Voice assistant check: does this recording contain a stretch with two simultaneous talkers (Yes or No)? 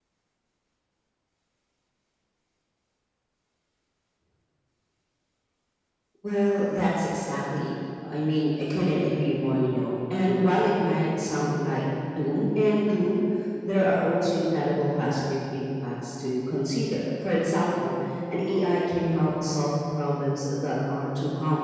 No